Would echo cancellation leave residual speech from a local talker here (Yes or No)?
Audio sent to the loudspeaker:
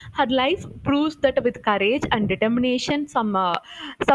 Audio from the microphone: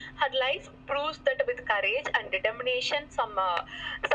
No